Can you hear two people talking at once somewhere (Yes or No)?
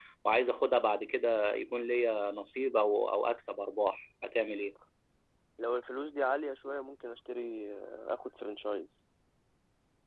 No